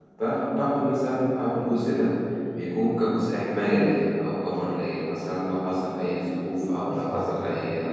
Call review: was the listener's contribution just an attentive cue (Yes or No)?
Yes